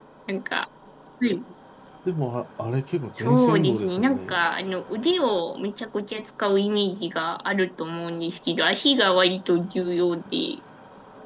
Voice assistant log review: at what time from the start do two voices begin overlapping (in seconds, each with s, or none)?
3.2 s